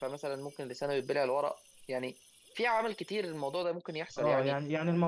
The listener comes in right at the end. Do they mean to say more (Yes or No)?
Yes